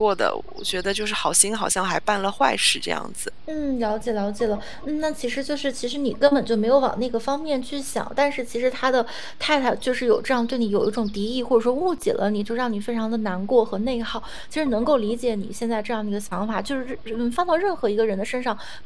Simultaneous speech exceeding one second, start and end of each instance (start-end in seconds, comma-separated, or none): none